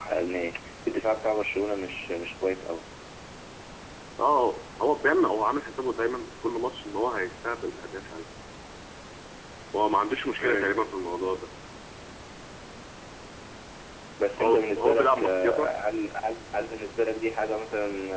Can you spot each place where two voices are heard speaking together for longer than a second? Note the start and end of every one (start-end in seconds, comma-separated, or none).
14.4-15.7